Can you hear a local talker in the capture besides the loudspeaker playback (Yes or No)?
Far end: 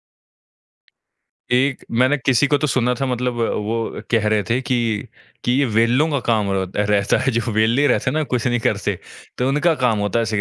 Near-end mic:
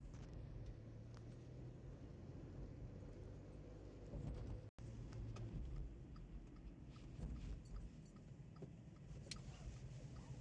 No